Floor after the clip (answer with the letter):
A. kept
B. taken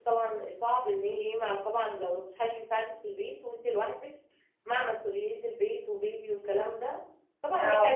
A